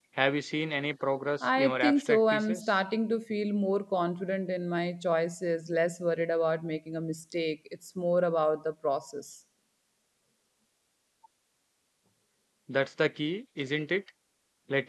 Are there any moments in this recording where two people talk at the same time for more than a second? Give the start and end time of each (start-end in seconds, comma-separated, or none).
1.4-2.6